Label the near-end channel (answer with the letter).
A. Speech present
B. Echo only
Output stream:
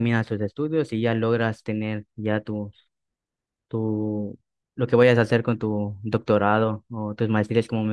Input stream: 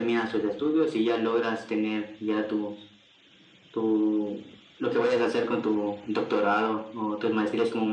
B